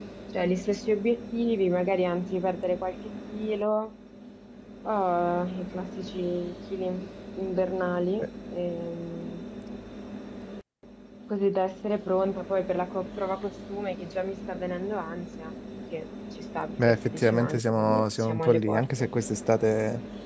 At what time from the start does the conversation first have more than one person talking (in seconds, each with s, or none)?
16.8 s